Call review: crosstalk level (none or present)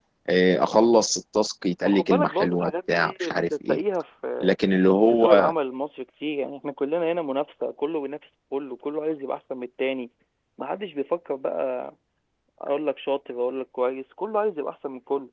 present